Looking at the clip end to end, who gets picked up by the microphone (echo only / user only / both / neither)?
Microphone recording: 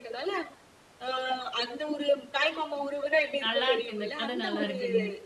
both